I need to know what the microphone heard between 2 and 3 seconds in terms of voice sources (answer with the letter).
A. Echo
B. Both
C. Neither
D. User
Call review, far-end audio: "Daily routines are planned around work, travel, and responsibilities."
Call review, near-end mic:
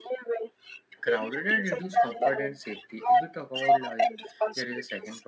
B